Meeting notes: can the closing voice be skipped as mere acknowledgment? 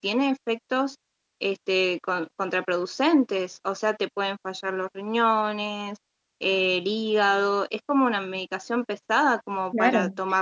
No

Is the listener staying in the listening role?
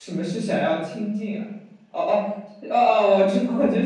No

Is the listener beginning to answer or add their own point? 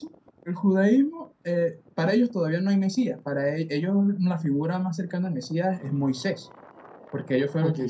No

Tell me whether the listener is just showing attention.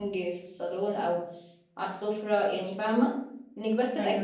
Yes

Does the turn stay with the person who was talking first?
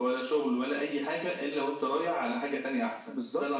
No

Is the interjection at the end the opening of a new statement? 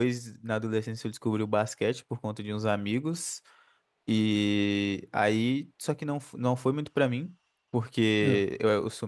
No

